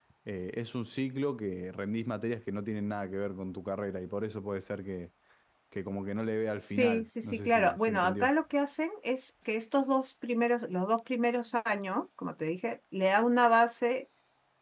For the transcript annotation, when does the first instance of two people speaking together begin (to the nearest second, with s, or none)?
7 s